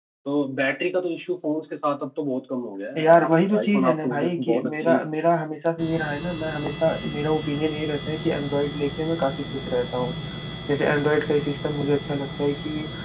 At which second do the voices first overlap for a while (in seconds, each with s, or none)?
2.9 s